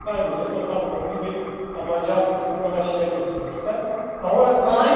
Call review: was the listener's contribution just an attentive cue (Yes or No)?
No